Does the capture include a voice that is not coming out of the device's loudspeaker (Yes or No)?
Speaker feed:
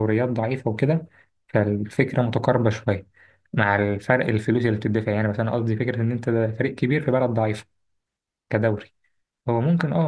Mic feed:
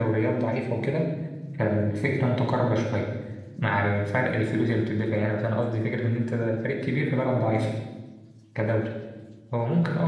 No